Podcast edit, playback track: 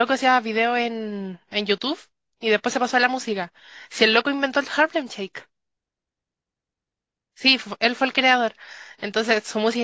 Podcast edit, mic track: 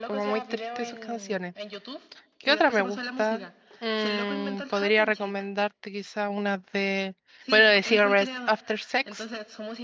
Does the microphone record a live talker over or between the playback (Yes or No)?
Yes